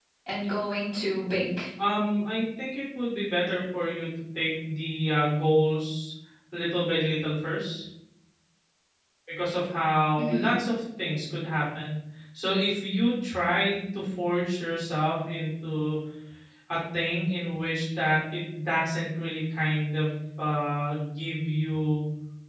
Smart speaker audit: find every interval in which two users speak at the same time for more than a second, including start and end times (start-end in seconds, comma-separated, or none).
none